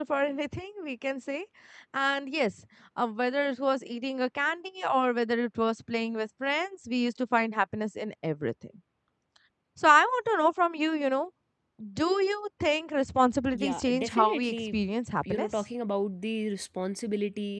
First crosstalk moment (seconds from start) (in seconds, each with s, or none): 13.5 s